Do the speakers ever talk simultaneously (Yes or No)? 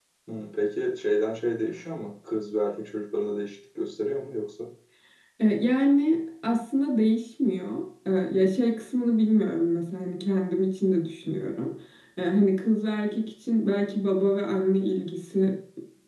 No